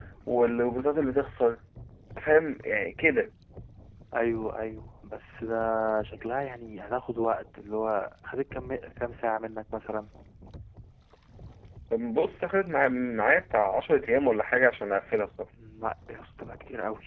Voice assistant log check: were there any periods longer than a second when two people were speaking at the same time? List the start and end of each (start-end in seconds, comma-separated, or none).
none